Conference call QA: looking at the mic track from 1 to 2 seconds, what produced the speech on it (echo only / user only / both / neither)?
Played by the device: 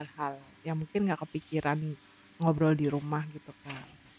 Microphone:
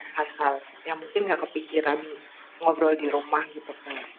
both